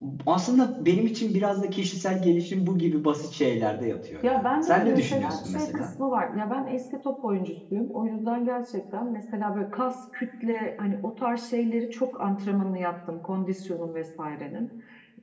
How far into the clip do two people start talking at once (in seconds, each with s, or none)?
4.2 s